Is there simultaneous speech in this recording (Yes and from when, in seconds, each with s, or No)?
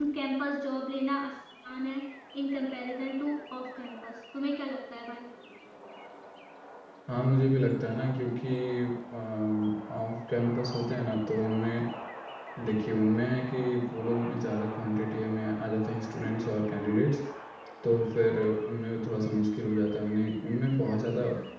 No